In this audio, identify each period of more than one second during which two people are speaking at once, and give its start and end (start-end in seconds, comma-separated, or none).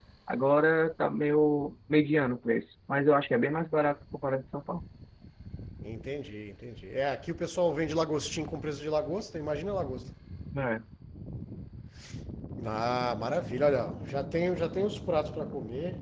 none